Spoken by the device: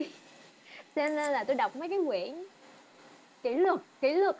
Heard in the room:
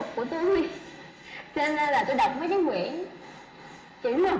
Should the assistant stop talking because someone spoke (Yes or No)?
No